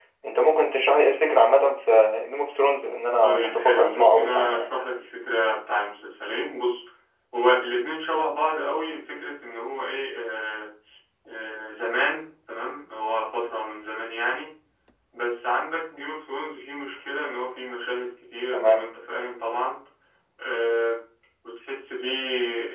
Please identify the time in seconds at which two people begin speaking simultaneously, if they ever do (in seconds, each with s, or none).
3.2 s